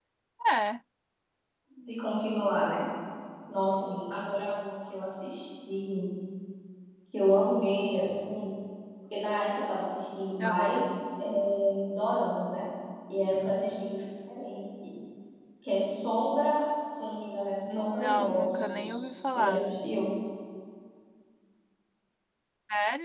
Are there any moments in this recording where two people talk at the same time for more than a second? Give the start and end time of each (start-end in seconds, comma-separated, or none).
17.7-19.6